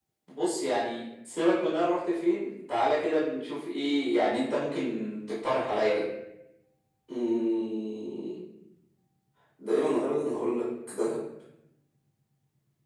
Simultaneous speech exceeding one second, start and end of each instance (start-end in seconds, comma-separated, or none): none